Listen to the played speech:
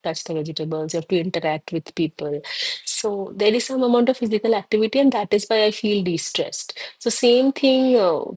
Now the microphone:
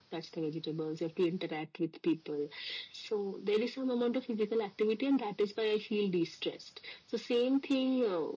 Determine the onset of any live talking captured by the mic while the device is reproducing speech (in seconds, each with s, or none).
none